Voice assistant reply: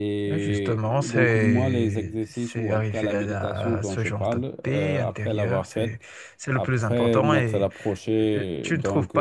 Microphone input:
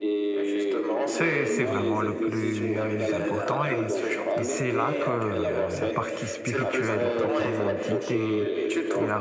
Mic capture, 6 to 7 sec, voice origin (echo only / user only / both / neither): both